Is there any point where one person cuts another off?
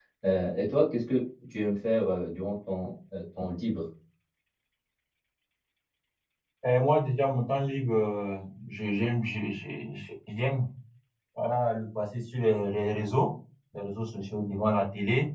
No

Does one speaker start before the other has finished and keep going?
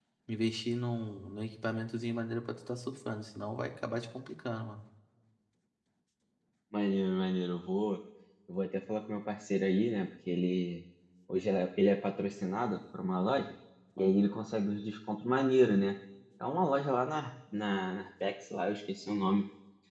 No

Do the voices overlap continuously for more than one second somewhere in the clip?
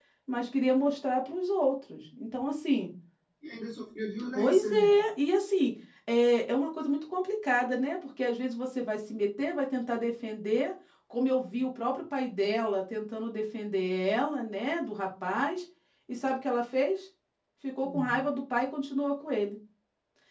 No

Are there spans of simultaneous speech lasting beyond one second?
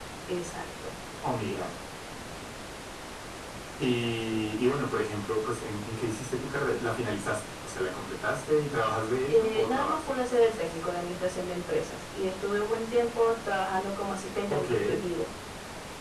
Yes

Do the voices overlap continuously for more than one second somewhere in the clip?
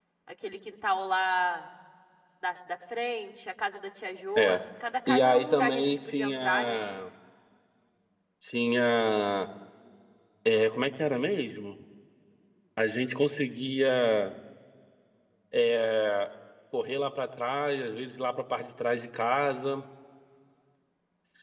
Yes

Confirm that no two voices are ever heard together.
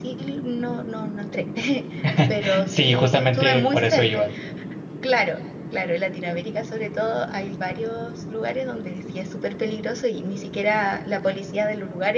No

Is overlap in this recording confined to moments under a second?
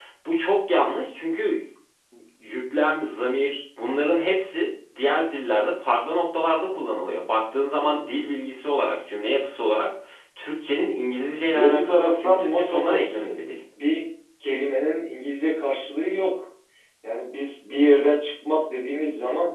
No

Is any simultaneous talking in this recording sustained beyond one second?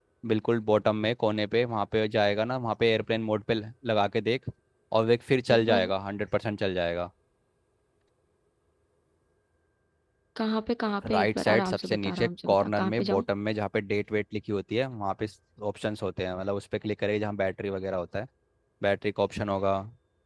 Yes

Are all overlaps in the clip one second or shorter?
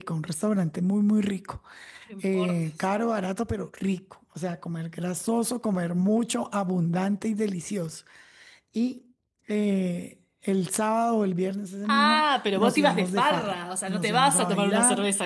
No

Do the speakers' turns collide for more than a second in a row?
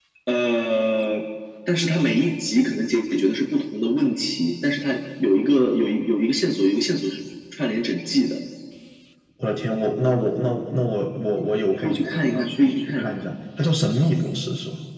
Yes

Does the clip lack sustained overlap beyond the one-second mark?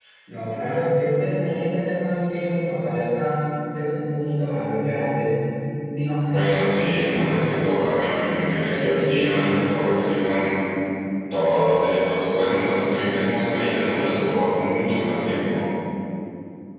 No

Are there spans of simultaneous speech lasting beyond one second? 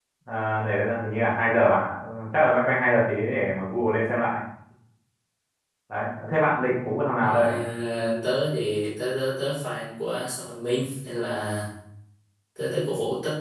No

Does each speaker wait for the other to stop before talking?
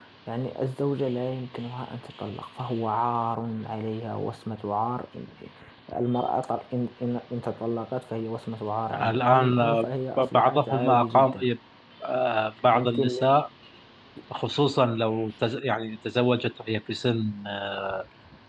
No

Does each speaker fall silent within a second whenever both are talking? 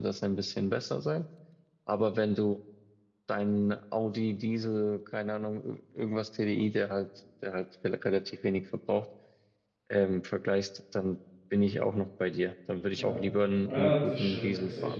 No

